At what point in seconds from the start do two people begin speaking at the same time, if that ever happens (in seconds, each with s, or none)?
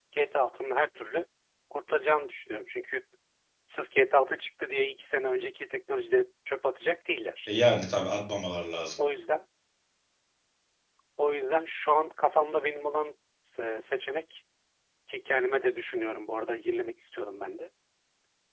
none